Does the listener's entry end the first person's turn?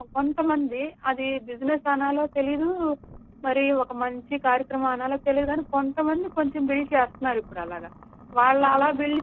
No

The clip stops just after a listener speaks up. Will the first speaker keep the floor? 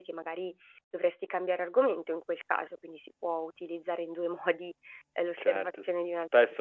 No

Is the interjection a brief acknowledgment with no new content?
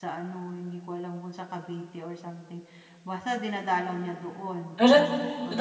No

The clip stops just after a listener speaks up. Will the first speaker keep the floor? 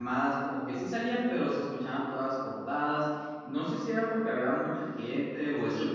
No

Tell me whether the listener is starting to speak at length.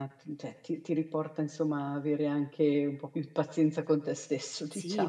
Yes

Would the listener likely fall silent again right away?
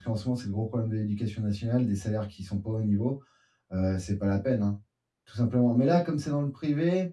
Yes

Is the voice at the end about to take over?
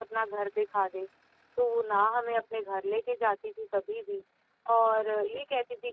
No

